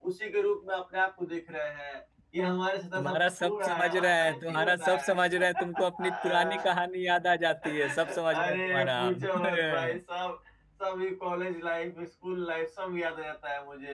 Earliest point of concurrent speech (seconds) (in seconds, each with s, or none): 3.0 s